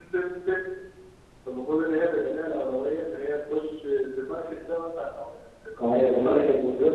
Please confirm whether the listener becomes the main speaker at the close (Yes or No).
Yes